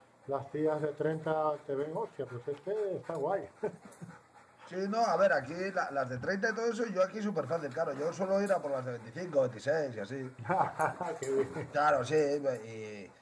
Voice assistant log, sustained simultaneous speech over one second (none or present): none